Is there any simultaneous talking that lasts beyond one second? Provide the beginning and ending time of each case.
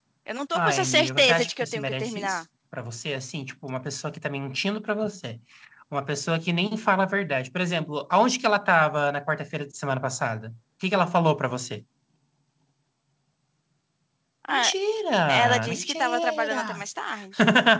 0.5-2.4, 15.3-16.8

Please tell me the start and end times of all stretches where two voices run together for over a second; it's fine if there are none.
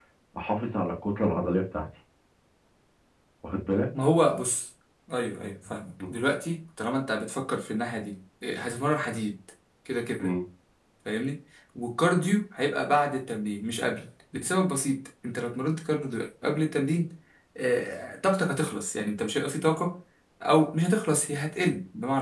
none

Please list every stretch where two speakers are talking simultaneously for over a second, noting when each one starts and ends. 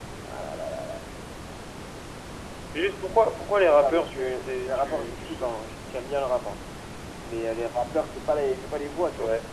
3.7-5.5

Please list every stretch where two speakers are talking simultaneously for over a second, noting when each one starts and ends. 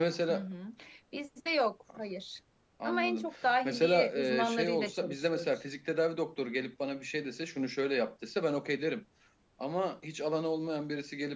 3.6-5.5

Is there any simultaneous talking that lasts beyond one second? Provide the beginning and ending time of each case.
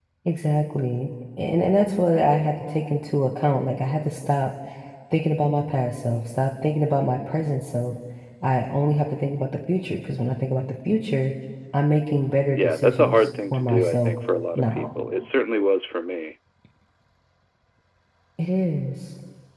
12.6-14.1

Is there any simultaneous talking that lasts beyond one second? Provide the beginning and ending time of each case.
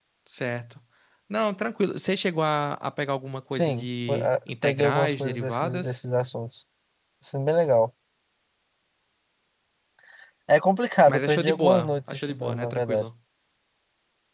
3.5-6.0, 11.1-13.0

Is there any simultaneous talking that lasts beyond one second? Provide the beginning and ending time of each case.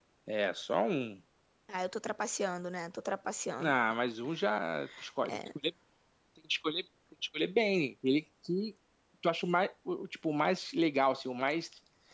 none

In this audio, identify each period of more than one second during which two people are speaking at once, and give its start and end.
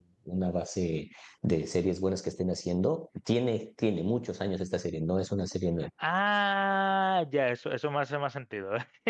none

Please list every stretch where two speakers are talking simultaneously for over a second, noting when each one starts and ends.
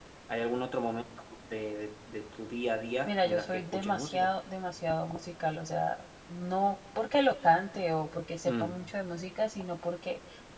3.0-4.3

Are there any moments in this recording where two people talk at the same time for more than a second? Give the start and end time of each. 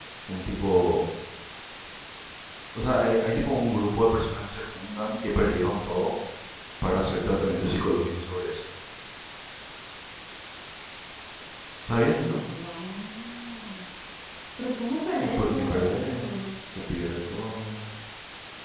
15.2-16.5

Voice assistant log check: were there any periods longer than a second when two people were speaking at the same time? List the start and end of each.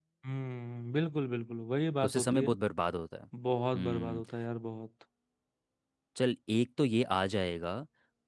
none

